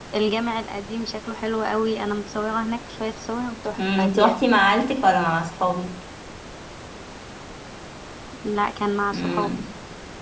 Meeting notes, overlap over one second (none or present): none